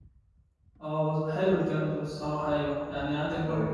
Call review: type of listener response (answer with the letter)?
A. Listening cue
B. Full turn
A